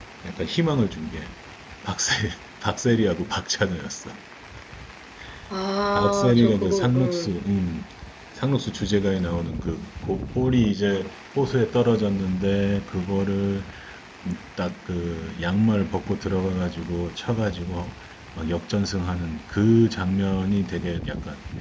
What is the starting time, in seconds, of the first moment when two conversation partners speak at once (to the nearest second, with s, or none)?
6 s